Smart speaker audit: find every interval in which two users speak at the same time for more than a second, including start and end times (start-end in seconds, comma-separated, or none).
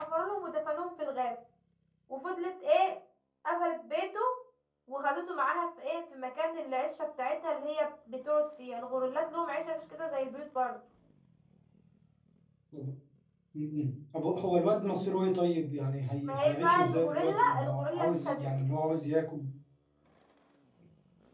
16.3-18.5